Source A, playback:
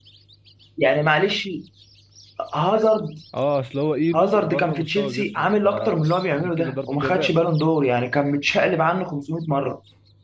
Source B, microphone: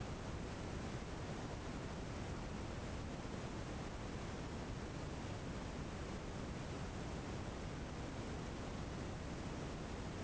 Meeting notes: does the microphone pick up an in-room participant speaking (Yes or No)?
No